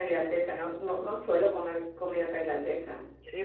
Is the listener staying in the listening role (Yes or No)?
No